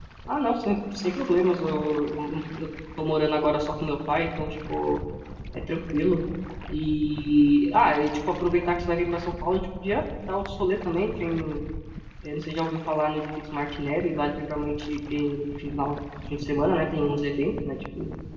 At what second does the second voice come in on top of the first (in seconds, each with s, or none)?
none